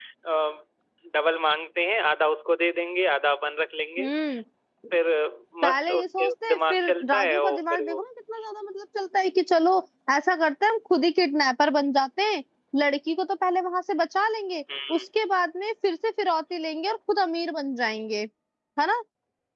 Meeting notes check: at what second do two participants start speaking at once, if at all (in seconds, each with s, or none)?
5.7 s